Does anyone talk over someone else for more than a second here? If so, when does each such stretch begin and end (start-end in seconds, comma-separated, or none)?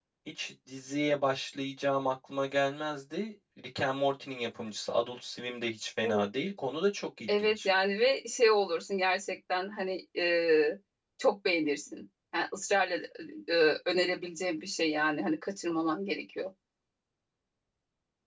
none